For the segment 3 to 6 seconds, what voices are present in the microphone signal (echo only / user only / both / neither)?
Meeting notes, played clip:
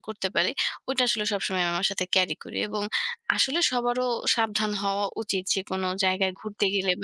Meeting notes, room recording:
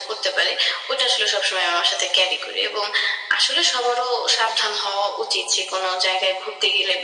echo only